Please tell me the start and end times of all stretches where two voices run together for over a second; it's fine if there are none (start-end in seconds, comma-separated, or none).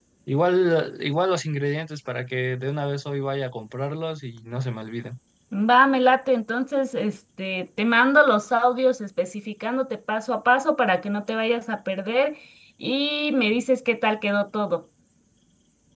none